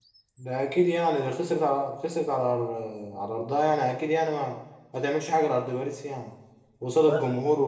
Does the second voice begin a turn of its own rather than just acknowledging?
No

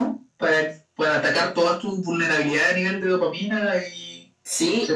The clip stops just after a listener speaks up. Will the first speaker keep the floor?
No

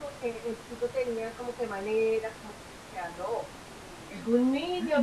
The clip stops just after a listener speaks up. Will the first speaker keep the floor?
No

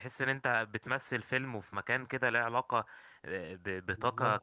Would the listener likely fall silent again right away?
Yes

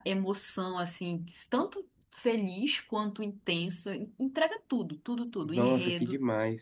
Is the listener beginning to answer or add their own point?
Yes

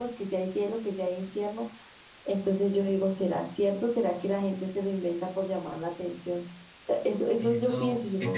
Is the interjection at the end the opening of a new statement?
Yes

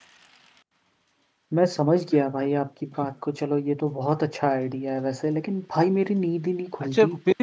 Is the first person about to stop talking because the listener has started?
Yes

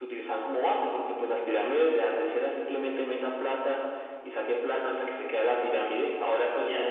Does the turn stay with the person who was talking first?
Yes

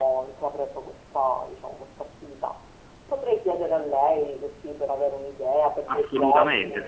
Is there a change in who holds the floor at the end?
Yes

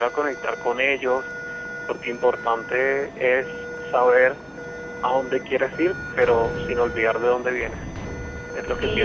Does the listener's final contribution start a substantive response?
Yes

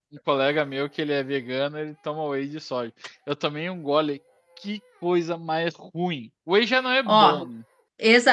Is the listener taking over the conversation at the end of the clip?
Yes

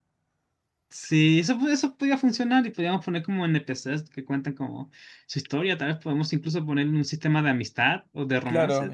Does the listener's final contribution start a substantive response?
Yes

